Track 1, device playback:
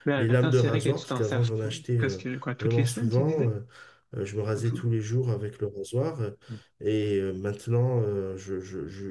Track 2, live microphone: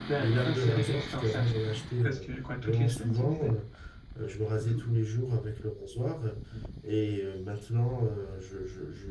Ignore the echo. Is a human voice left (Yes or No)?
No